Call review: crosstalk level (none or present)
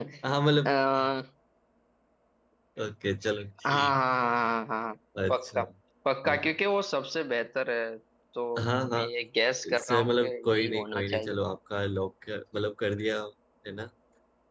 present